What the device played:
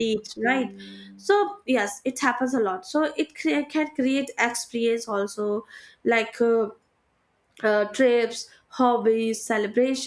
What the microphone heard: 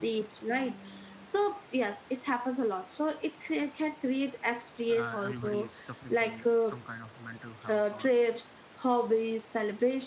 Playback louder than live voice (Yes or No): Yes